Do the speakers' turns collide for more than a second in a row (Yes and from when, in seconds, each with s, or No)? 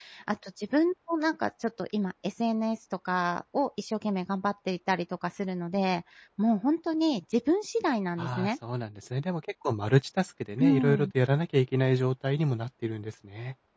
No